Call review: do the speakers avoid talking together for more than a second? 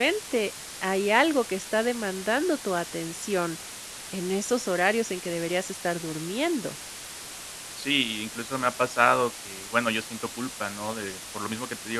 Yes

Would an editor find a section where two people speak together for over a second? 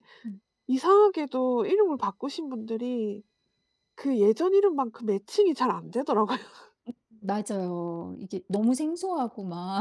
No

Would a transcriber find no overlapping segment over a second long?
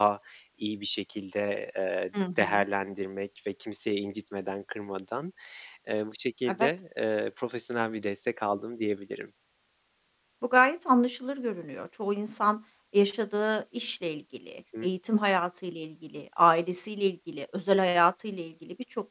Yes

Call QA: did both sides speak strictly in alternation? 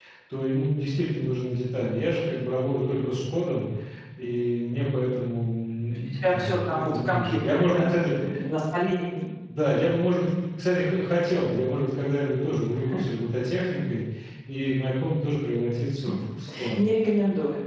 No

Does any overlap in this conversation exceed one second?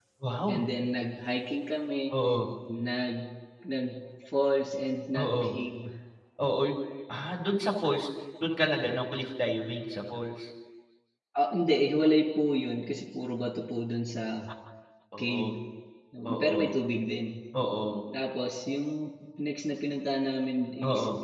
No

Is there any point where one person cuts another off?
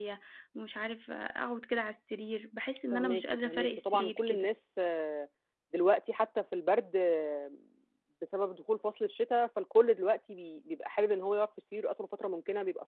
Yes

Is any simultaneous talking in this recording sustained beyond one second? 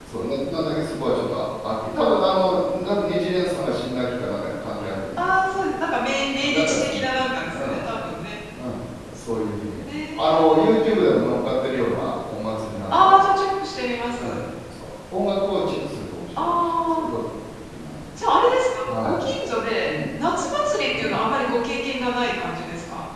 Yes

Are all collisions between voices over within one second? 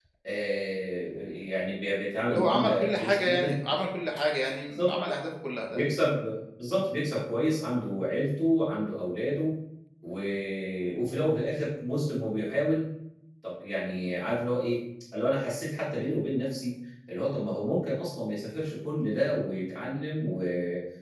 No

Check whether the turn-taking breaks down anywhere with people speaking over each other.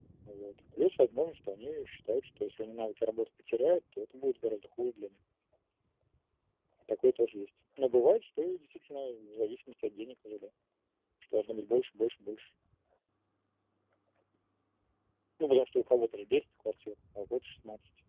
No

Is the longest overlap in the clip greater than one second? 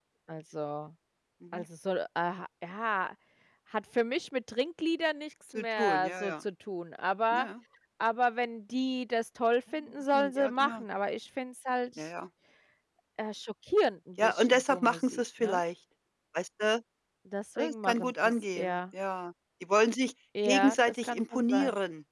Yes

